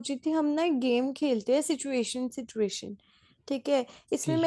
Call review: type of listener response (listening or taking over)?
listening